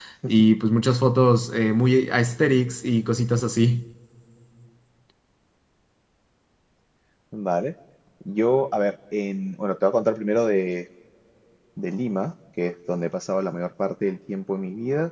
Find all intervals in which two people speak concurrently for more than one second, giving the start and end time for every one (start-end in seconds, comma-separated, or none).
none